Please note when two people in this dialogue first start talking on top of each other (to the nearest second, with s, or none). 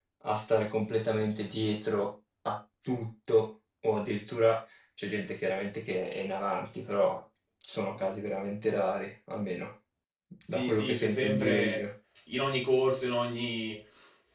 11 s